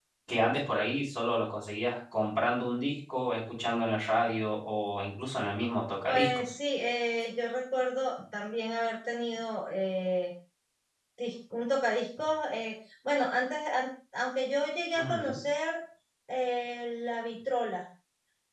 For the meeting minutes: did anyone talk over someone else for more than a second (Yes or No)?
No